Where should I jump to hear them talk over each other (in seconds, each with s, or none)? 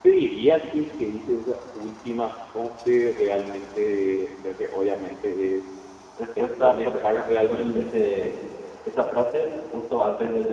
6.4 s